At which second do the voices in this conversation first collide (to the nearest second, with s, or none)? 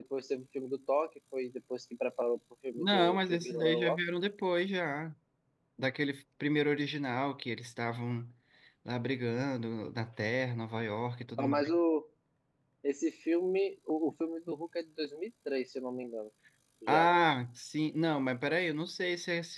3 s